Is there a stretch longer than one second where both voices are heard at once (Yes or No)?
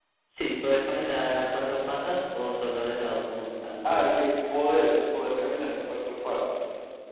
No